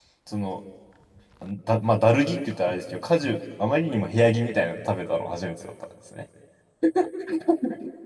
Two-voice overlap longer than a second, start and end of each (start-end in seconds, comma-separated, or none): none